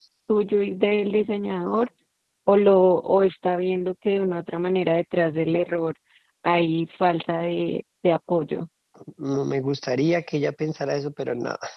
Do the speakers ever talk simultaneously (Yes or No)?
No